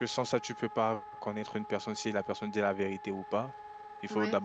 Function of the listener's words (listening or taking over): listening